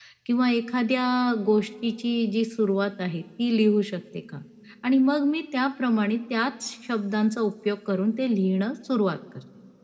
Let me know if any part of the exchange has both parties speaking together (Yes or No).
No